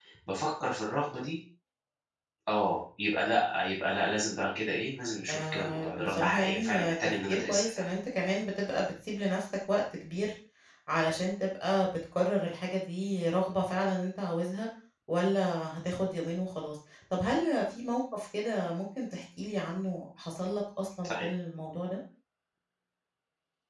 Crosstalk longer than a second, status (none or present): present